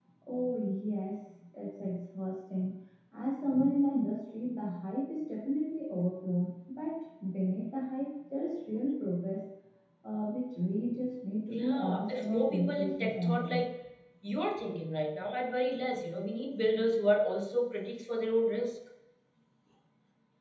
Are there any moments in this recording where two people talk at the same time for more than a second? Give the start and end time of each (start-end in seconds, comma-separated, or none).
11.5-13.6